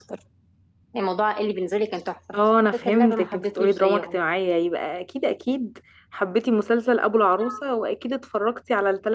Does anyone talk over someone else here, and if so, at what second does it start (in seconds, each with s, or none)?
2.7 s